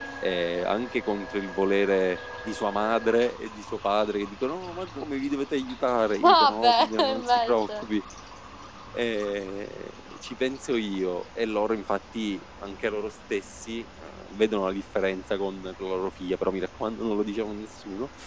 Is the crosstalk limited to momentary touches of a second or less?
No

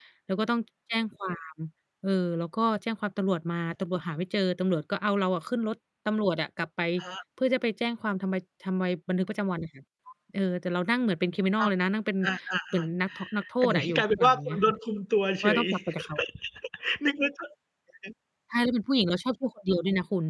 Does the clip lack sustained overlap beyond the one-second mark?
No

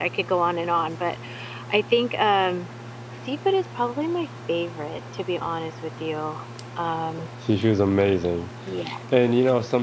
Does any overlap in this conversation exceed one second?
No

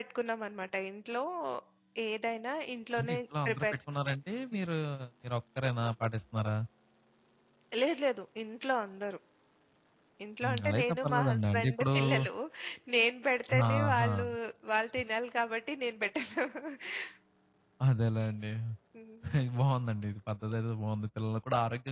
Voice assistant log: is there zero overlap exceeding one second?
No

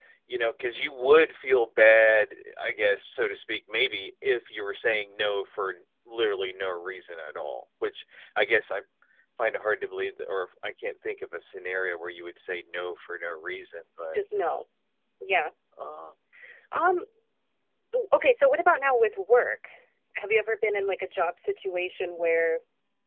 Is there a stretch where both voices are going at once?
No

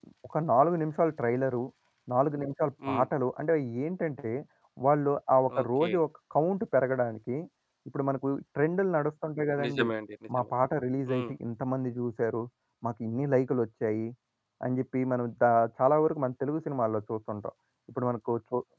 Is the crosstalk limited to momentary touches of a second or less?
Yes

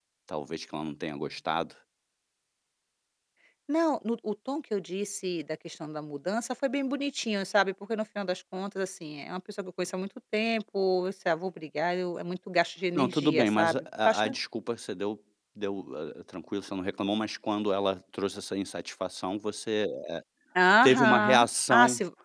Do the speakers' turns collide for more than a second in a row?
Yes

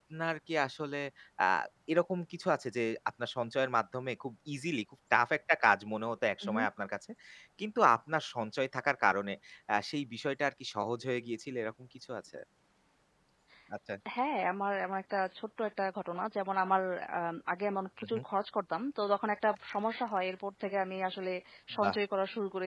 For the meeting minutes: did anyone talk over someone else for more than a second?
No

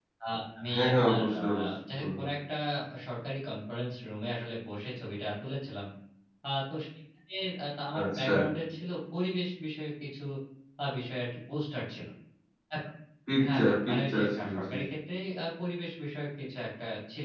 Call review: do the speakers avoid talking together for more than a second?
No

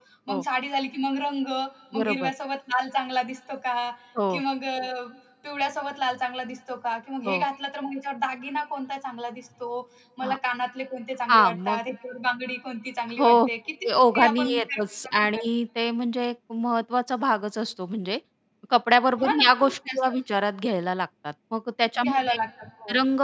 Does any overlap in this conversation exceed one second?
Yes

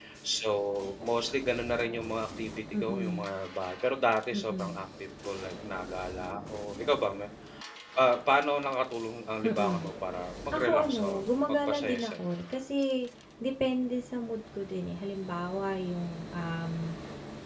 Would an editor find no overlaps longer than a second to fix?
No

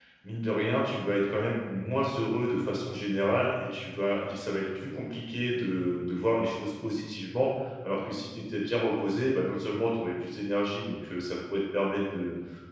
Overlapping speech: No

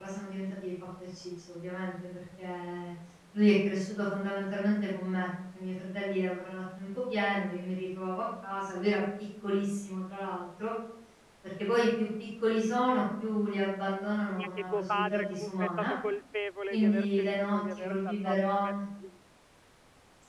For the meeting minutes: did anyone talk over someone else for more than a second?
Yes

